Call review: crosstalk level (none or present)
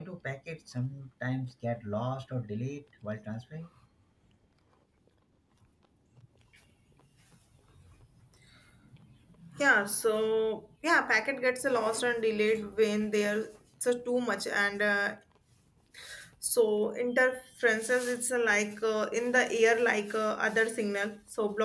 none